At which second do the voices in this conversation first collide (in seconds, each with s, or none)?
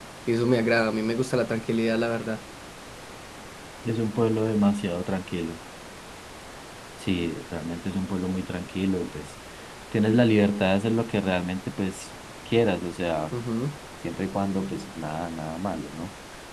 none